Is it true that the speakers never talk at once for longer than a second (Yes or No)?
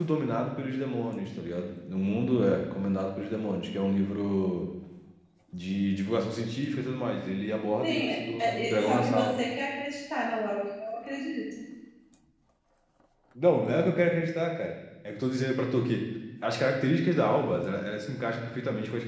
No